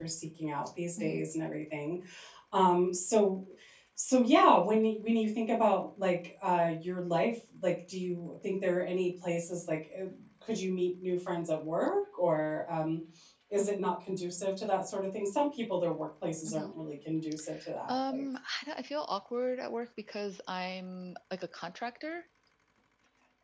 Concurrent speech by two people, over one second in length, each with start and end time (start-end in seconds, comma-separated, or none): none